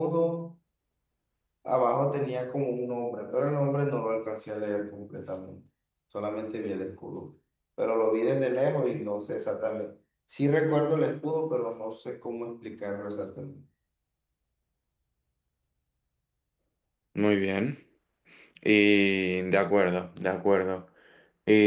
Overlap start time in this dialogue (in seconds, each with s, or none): none